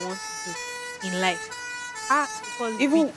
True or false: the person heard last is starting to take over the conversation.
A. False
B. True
B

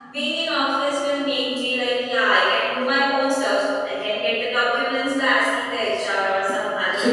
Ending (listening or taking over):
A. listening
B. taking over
B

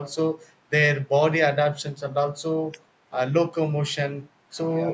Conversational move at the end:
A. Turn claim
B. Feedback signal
B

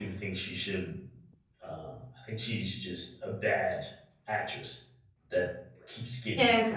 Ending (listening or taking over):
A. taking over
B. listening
A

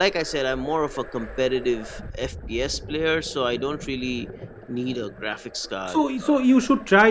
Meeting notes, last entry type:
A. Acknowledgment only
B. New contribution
B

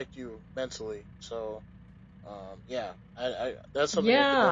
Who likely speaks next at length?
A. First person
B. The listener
B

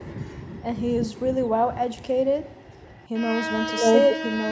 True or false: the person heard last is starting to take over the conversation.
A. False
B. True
A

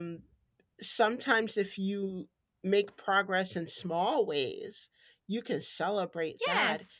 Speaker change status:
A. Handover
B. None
A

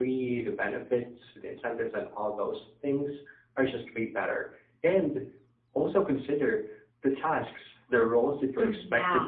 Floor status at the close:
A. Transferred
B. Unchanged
B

